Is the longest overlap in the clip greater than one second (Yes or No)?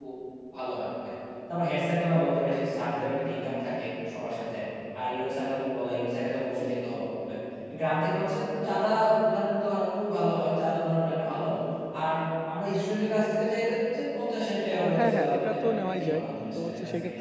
Yes